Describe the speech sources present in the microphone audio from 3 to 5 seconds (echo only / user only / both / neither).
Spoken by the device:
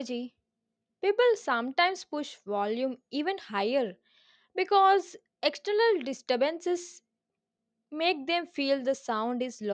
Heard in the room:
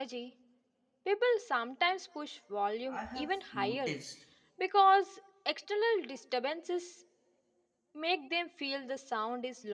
both